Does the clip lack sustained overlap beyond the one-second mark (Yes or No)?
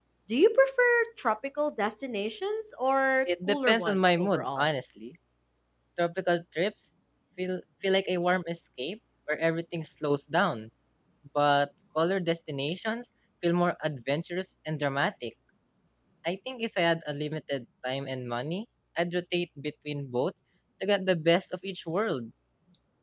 No